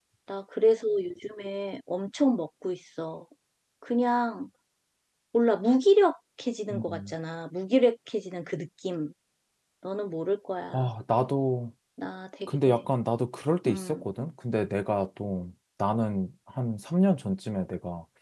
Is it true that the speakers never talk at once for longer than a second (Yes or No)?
Yes